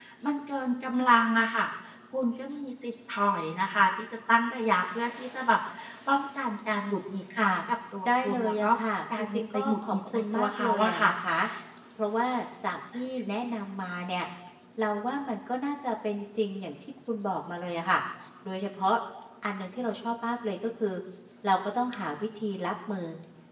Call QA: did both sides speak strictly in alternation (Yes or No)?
No